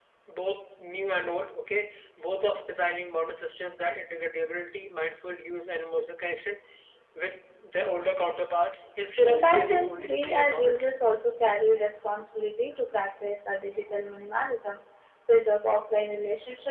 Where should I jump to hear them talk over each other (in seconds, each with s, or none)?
9.2 s